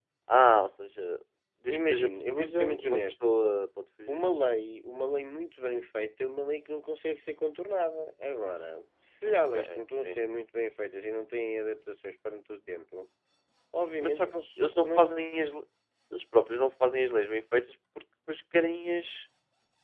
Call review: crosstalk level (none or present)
present